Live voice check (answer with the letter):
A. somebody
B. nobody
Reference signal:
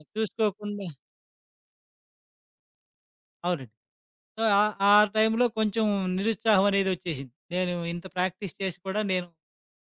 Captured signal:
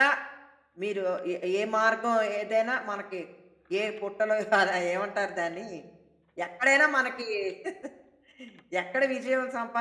A